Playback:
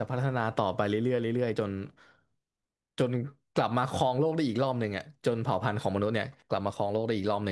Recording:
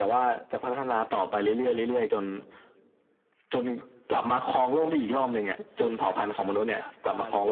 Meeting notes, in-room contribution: present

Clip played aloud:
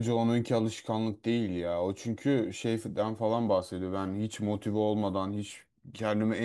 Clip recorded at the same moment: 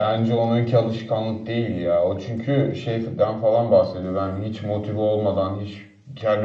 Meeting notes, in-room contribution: none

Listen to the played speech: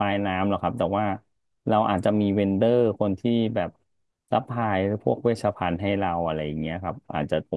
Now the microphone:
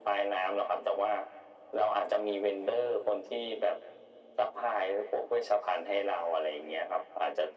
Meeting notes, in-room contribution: none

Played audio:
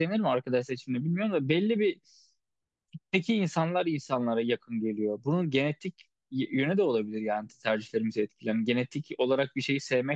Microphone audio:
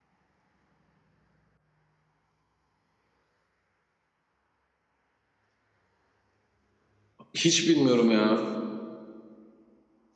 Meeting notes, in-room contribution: present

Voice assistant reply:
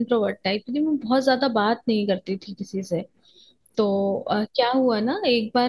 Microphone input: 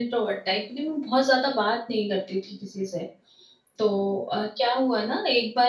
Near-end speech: none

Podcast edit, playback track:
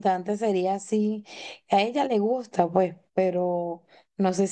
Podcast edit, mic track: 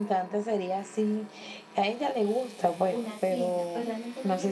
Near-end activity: present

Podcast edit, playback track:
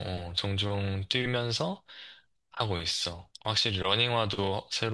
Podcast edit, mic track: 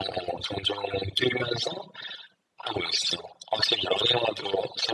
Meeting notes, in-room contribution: none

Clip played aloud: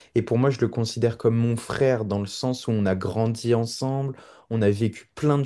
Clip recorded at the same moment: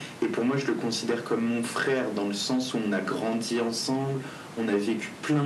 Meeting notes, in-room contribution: none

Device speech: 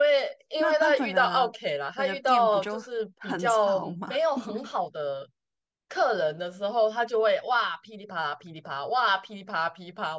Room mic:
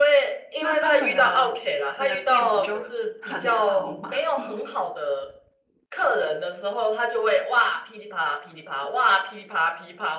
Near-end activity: none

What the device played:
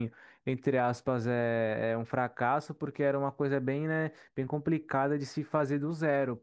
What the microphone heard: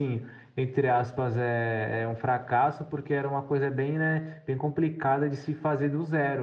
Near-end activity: none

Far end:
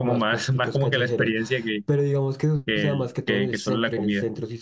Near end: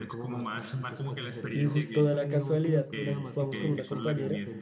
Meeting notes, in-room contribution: present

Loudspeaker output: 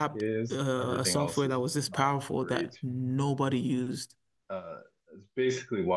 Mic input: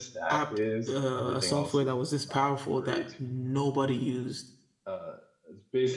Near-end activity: none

